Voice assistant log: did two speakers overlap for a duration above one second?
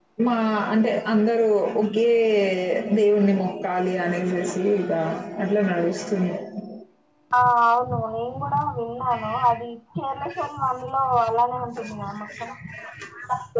No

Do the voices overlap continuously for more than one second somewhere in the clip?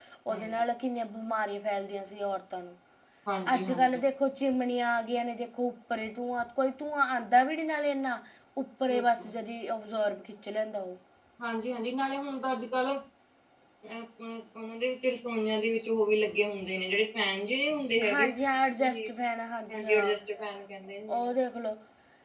No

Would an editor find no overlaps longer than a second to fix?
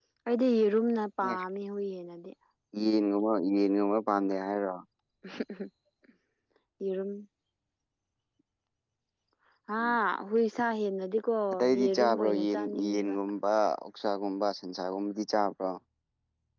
No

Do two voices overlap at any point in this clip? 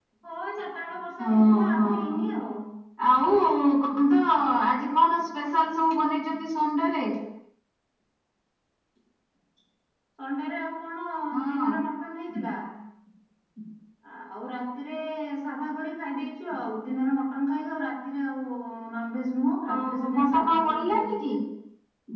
Yes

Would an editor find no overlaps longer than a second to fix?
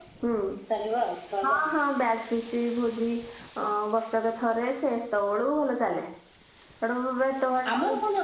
Yes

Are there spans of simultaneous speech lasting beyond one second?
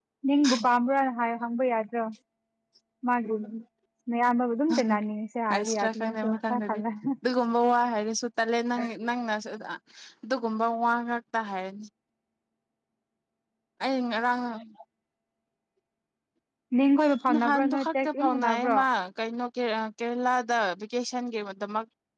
Yes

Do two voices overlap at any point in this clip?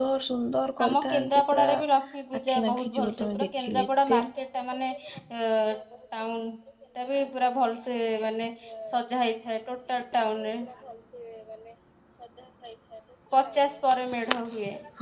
Yes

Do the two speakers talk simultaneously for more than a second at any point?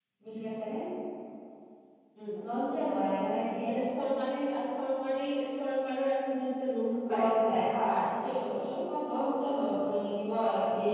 No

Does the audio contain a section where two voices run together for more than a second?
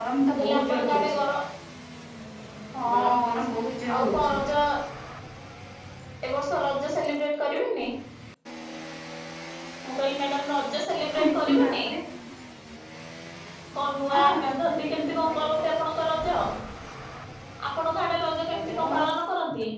Yes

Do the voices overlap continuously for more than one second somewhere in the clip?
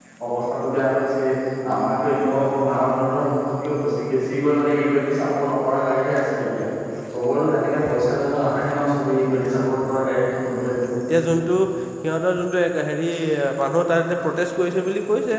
No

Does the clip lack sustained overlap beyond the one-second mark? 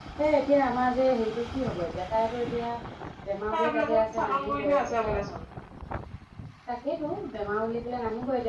No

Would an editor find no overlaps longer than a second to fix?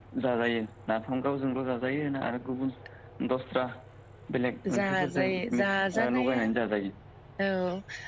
No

